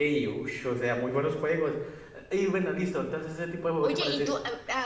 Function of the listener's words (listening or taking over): taking over